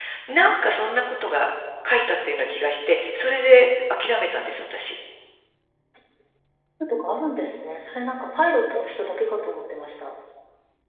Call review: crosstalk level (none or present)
none